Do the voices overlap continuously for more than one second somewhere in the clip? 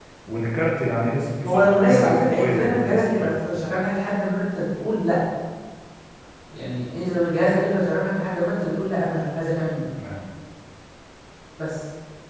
Yes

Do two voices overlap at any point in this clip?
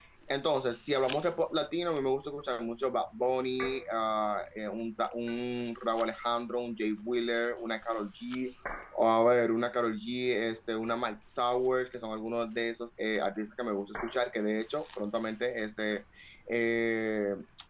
No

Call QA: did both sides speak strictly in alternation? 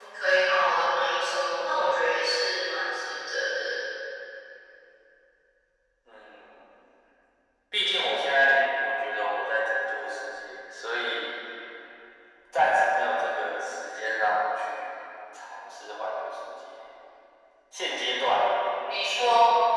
Yes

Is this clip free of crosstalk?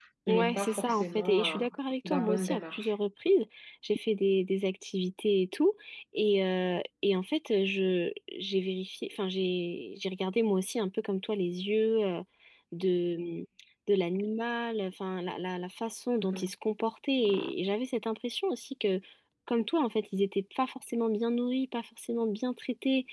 No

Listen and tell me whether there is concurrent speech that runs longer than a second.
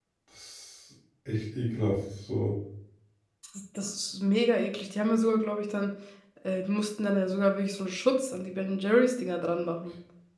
No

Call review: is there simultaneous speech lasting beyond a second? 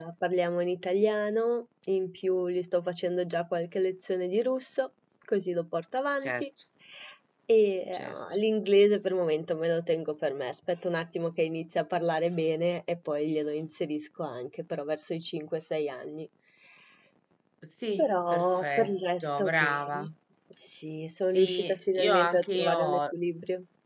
Yes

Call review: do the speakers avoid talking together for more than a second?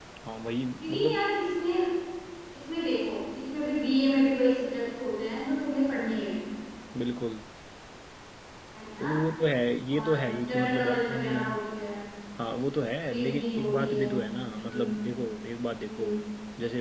No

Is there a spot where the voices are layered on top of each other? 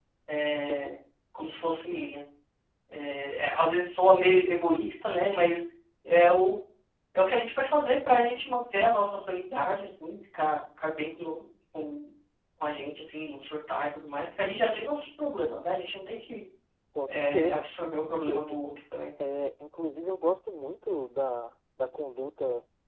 Yes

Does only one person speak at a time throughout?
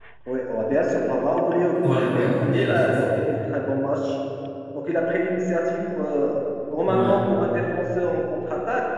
No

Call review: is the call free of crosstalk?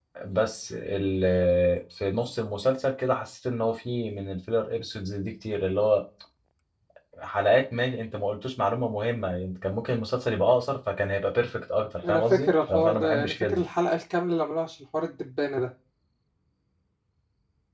No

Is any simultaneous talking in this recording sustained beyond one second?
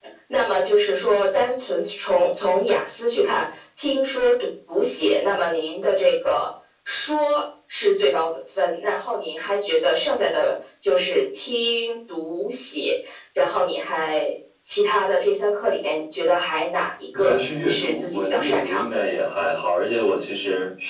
Yes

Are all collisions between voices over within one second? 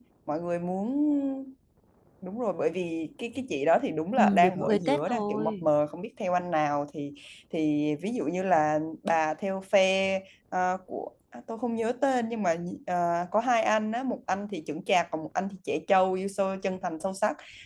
No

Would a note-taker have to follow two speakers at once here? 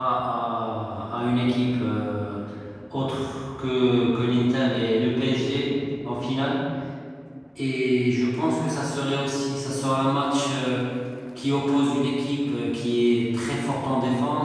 No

